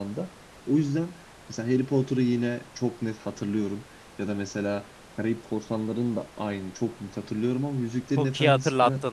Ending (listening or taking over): taking over